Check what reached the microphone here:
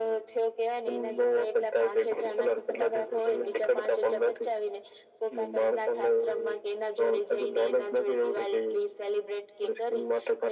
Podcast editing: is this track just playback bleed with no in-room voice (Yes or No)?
Yes